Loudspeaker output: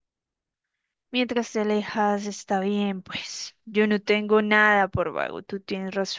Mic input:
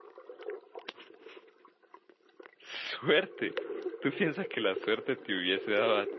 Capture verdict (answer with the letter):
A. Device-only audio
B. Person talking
B